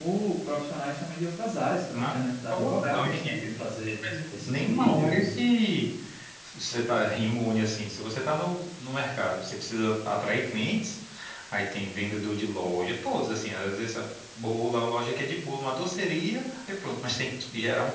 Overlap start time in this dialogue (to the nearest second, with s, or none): 2 s